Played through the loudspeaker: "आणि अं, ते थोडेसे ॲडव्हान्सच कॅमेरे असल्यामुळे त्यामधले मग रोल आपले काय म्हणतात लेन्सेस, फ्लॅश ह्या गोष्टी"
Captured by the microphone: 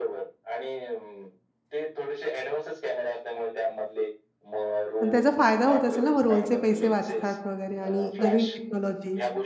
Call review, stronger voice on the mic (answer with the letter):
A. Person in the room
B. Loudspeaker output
A